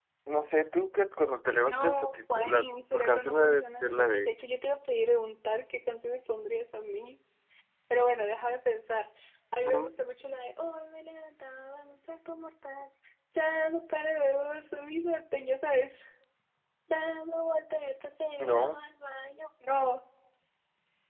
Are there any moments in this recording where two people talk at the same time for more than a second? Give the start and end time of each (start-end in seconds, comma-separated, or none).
1.7-4.3